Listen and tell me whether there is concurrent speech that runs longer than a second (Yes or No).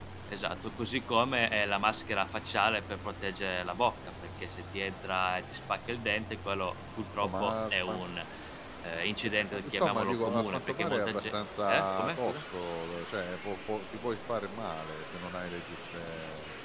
Yes